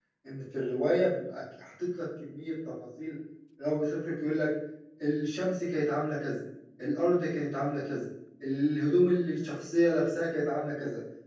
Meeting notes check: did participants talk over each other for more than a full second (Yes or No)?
No